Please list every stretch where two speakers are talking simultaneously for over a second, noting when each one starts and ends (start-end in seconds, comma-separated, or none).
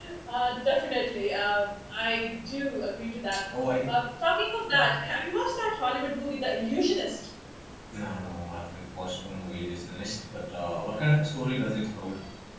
none